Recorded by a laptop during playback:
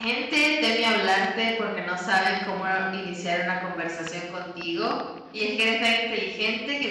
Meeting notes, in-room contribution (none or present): present